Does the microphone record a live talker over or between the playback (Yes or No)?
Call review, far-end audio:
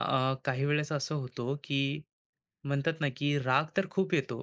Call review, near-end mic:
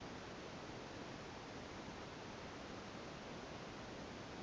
No